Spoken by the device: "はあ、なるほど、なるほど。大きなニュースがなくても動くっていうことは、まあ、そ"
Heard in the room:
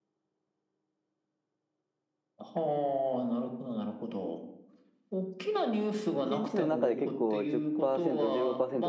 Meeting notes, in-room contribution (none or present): present